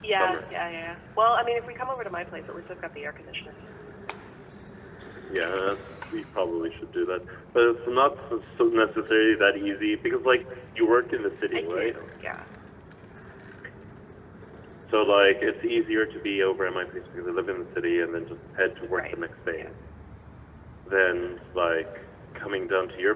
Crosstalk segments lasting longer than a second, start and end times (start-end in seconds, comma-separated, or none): none